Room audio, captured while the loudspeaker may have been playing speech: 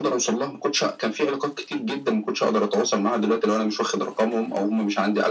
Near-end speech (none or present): none